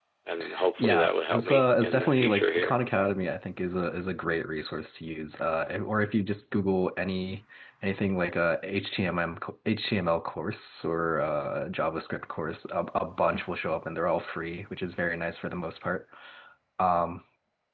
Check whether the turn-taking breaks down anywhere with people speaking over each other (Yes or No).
Yes